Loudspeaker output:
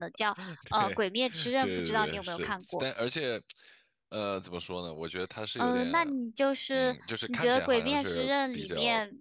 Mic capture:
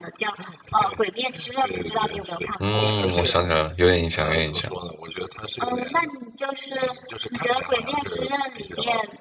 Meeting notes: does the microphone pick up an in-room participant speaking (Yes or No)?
Yes